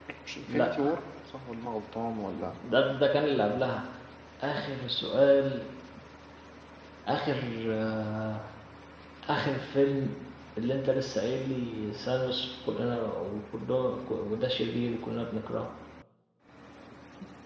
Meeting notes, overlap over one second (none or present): none